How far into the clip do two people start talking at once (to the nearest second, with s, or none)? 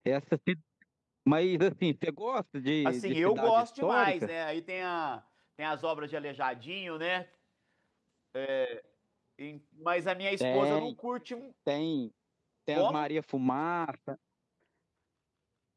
3 s